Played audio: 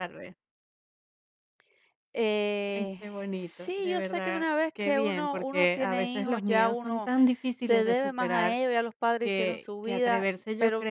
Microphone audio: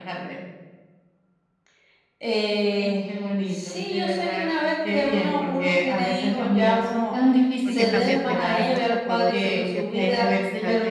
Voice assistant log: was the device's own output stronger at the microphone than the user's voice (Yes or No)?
Yes